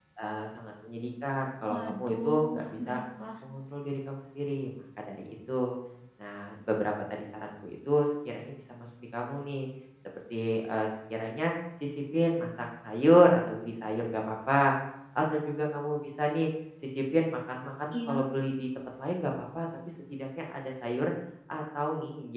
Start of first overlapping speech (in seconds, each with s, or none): 1.7 s